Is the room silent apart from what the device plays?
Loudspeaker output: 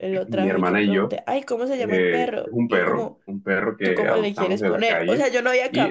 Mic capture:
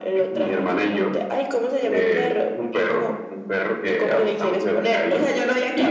Yes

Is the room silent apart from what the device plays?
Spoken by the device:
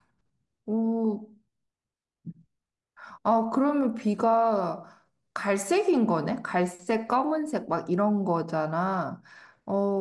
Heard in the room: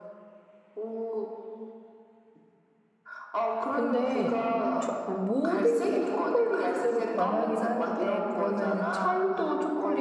No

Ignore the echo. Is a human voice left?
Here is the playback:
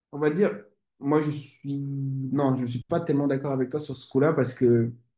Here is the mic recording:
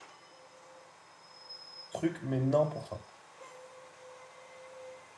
Yes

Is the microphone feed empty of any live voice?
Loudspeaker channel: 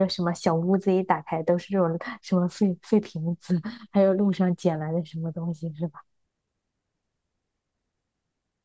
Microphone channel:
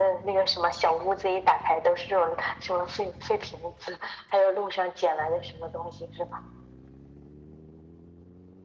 Yes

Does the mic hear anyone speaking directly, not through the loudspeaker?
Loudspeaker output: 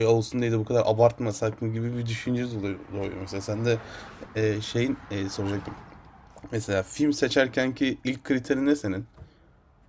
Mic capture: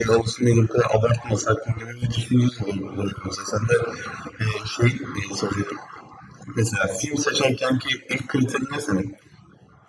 No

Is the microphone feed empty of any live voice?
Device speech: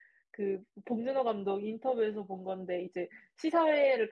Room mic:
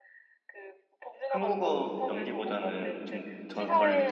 No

